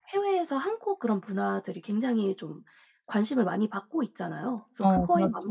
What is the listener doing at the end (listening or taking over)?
listening